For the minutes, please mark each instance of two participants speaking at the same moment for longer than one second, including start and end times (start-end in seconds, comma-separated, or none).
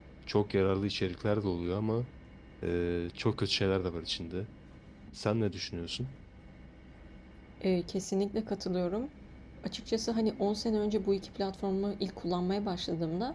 none